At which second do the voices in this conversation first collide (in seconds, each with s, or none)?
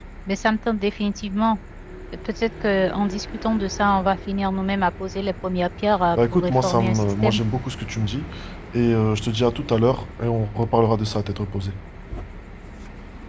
6.2 s